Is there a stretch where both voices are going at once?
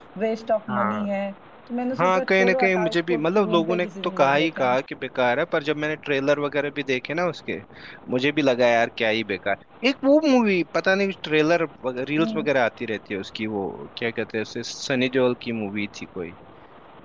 Yes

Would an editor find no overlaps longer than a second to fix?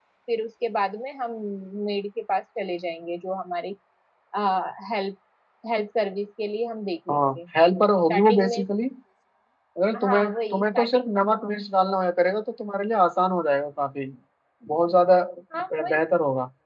No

